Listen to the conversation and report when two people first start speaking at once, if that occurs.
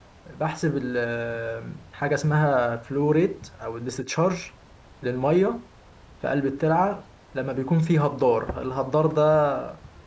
none

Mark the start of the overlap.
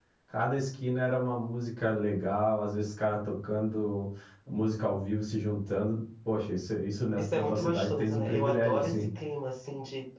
7.2 s

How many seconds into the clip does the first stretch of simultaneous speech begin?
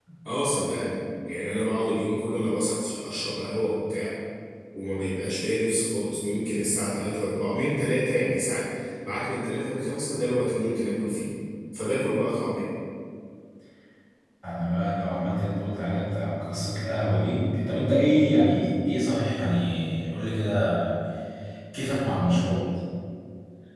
none

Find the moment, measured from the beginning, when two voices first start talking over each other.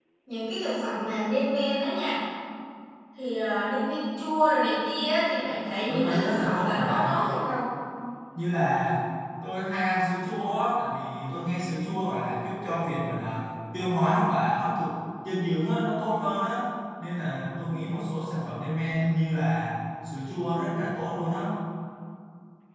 5.9 s

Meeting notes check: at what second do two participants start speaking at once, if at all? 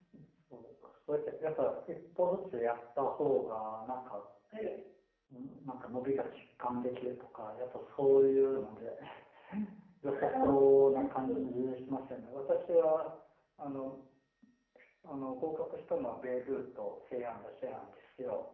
10.1 s

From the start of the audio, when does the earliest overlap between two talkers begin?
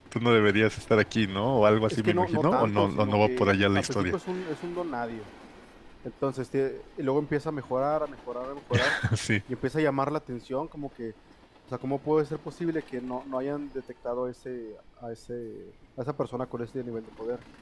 1.9 s

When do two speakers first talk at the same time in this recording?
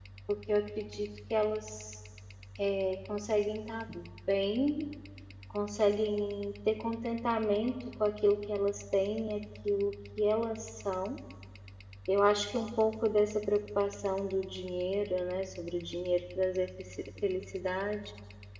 none

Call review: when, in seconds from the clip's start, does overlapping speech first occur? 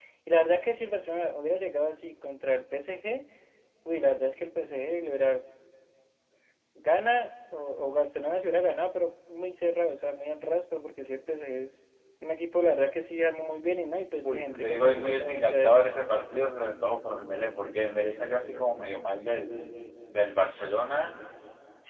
14.2 s

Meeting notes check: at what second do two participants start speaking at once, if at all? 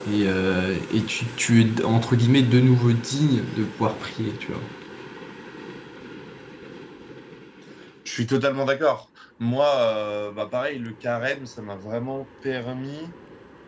none

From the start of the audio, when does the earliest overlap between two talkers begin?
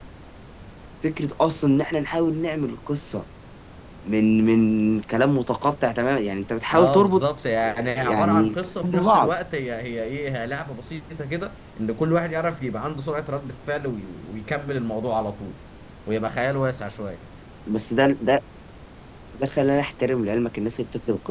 6.7 s

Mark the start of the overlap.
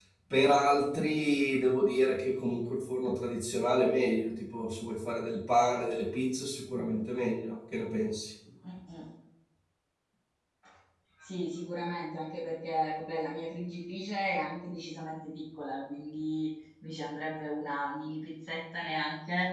none

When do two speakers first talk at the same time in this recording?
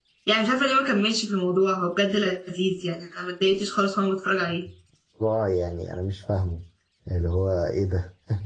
none

